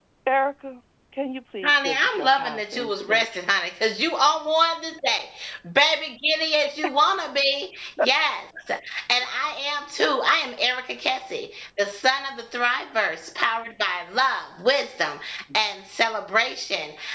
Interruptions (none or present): present